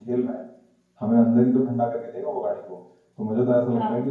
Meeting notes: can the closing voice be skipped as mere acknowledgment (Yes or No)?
Yes